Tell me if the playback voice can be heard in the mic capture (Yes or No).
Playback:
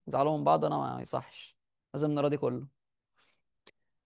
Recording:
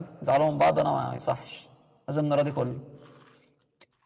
Yes